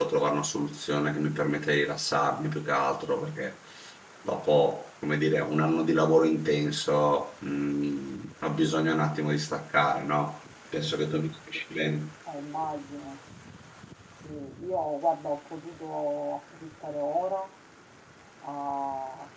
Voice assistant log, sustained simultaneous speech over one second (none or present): none